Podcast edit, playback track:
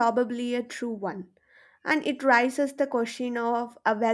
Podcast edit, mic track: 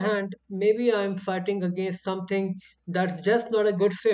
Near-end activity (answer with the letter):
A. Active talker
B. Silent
A